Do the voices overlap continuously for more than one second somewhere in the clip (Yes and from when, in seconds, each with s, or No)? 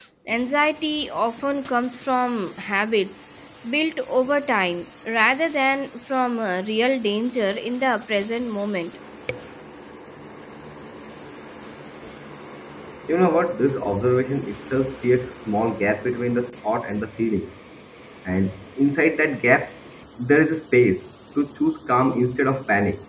No